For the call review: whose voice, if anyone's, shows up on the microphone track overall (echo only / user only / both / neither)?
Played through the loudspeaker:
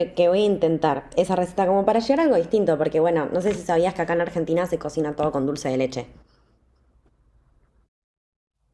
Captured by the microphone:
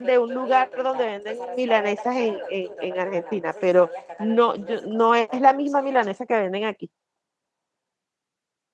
both